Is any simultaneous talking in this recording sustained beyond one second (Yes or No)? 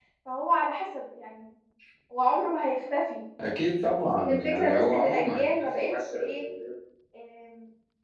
Yes